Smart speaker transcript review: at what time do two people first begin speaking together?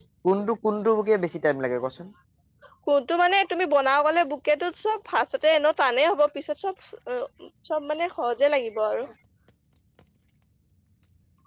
none

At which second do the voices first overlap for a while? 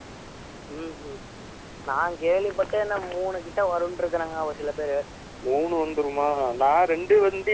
none

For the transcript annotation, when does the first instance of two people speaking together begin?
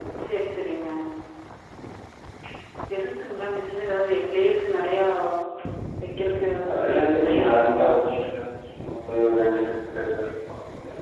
6.7 s

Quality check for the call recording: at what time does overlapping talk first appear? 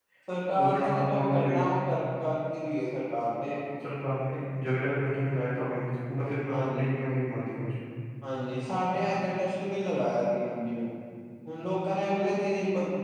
0.5 s

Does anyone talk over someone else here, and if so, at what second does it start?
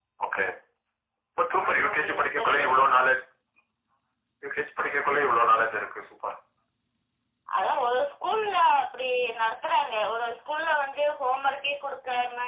1.8 s

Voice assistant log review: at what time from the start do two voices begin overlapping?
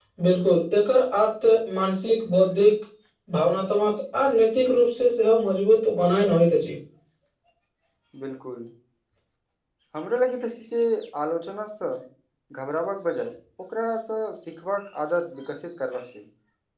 none

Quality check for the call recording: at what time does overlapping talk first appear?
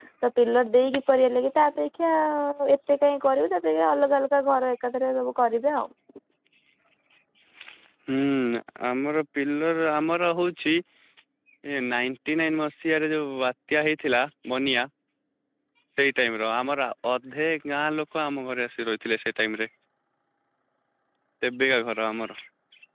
none

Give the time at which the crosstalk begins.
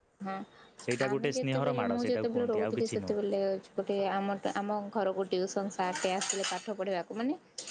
1.1 s

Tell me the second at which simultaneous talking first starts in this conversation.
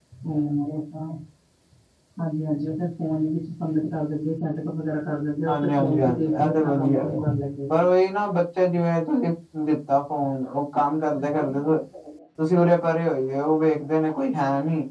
5.5 s

